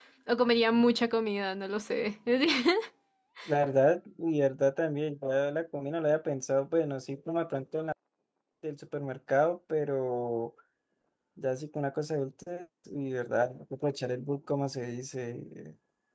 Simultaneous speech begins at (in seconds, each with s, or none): none